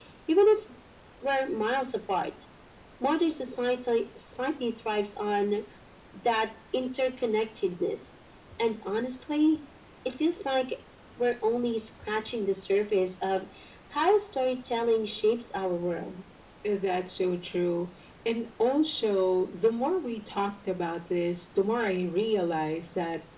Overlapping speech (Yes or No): No